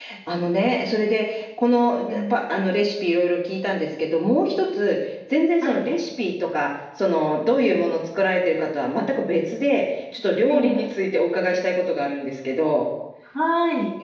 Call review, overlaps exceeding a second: none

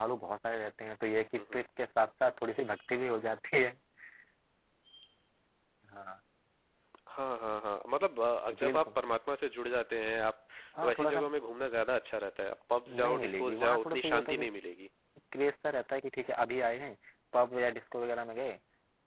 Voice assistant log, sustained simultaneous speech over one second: present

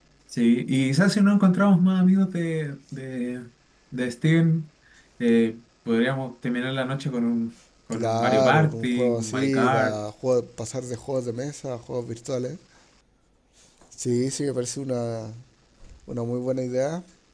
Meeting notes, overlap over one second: present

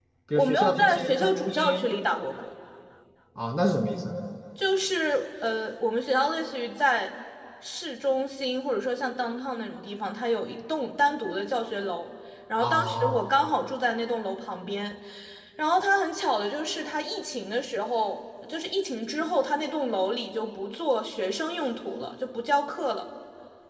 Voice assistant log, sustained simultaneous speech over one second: present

